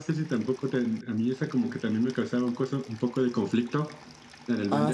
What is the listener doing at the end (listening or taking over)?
taking over